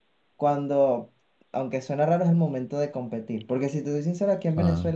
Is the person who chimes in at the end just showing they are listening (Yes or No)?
Yes